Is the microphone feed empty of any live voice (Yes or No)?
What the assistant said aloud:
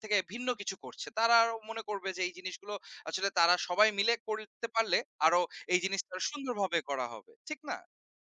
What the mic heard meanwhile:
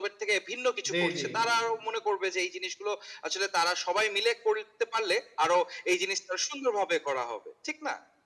No